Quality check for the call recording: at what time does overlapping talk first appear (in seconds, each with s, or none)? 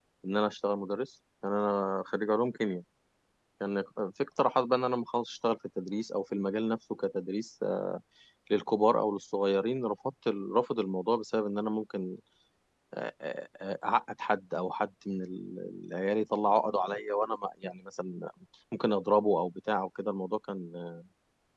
none